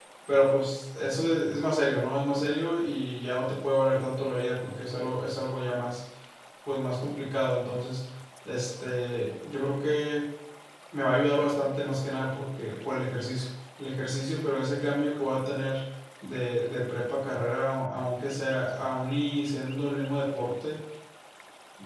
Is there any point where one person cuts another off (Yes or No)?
No